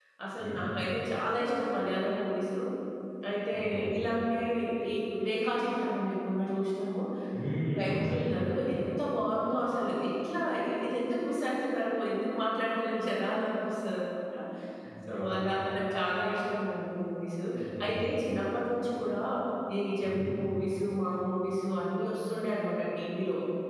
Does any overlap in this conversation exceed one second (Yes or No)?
No